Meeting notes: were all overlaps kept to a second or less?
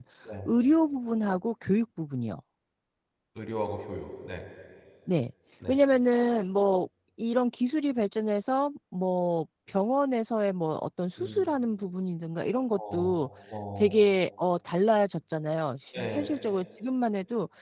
Yes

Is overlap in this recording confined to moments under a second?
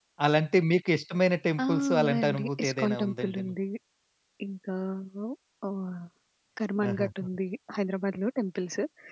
No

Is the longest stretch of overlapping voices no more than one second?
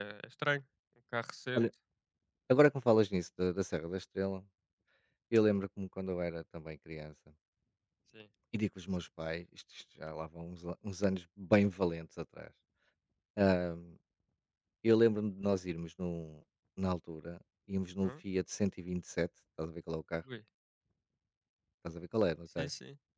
Yes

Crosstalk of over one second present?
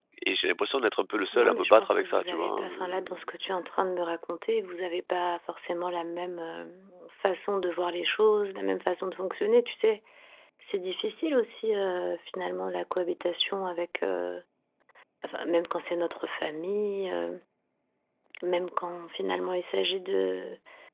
Yes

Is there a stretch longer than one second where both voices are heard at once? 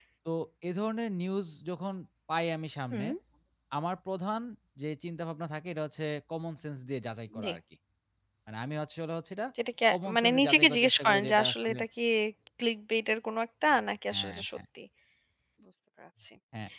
Yes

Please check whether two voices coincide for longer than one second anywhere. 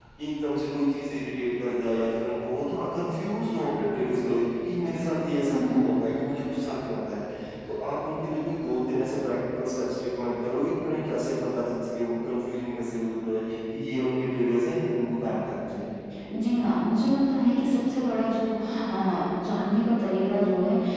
No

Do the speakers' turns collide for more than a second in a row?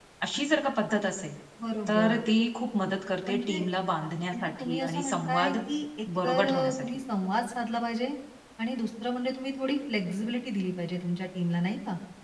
Yes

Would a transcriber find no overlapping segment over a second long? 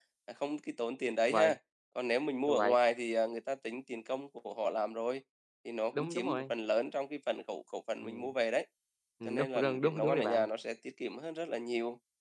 No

